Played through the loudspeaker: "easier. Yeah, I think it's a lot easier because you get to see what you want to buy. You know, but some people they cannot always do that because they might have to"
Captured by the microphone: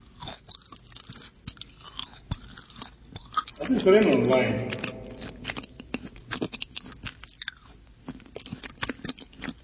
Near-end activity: present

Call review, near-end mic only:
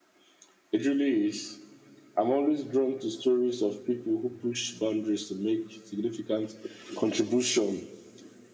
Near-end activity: none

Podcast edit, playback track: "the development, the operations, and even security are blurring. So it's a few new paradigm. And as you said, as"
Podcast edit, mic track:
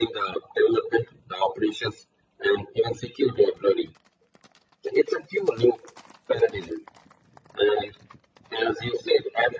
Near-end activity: none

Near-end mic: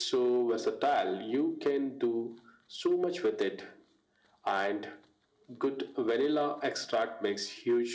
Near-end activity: none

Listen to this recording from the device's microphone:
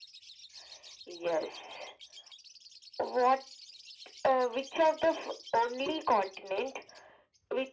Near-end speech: none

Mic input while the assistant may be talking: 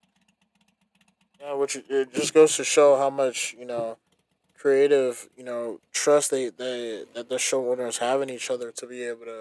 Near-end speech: present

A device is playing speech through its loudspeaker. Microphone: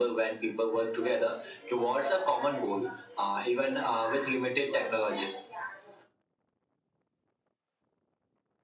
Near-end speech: none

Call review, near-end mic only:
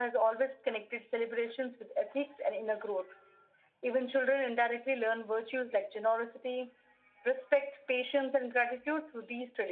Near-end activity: none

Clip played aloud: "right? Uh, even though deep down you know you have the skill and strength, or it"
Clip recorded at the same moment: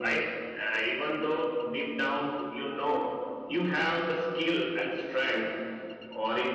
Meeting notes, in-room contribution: none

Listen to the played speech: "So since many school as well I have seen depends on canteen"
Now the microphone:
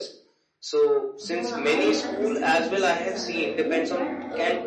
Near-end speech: present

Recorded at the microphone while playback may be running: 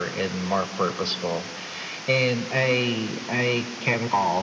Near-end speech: none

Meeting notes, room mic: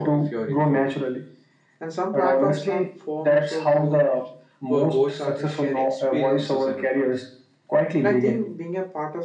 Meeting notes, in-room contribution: present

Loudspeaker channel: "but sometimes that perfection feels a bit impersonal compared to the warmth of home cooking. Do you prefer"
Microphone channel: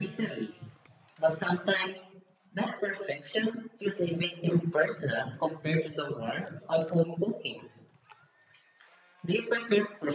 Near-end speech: none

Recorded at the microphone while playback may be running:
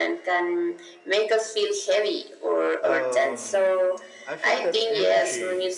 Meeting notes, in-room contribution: present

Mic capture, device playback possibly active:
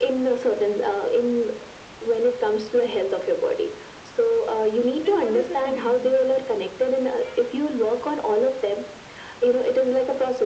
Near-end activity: present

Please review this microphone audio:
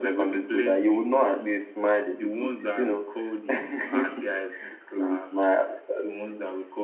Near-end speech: none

